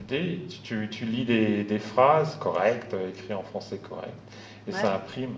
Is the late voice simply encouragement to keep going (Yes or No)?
Yes